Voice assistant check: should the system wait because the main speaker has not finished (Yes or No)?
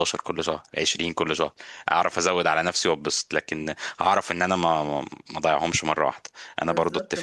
No